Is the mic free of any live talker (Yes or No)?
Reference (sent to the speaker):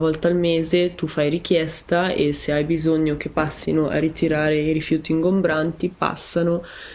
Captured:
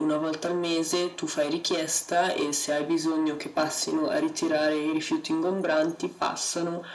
Yes